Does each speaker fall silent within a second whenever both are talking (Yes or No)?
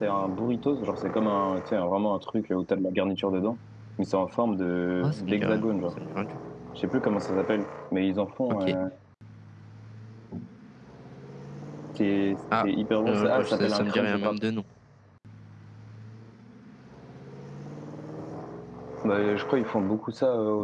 No